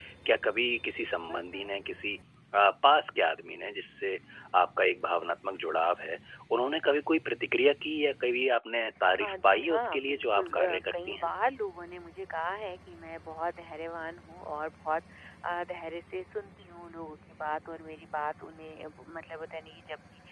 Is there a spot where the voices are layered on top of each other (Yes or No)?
Yes